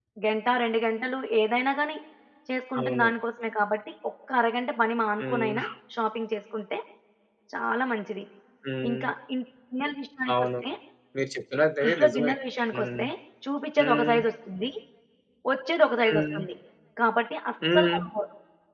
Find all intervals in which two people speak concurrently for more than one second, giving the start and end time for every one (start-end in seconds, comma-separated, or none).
none